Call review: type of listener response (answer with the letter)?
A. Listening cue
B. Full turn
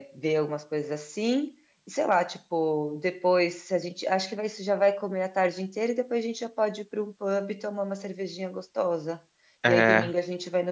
A